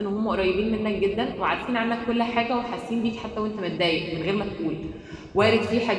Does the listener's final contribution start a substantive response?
No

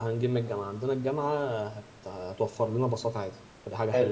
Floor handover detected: Yes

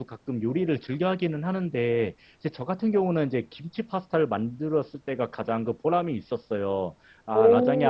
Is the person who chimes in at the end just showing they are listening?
Yes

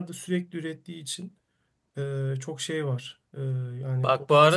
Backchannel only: No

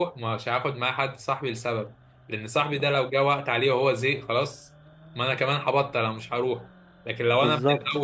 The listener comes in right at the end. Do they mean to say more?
No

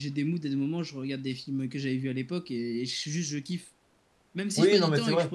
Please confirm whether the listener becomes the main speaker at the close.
Yes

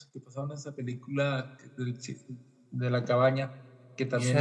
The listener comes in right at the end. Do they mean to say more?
Yes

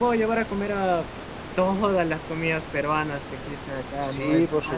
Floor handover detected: Yes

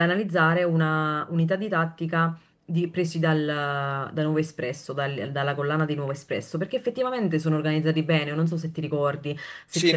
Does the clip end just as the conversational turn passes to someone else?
Yes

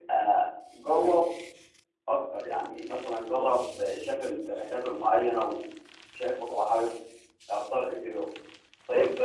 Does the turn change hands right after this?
No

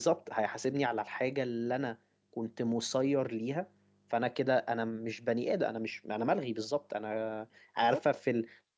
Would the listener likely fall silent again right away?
Yes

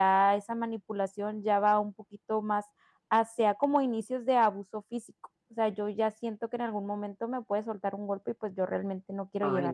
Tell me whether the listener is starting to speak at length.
Yes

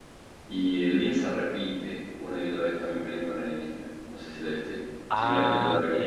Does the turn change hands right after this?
Yes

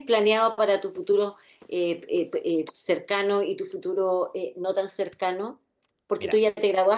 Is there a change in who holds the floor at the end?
No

